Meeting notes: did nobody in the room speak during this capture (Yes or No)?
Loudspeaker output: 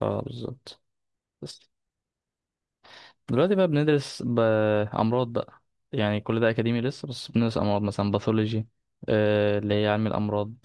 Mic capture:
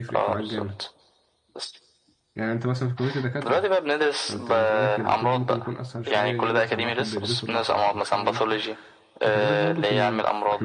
No